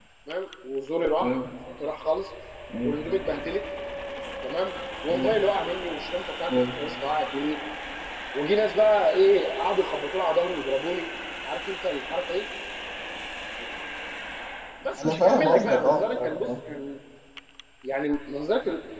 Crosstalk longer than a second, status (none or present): present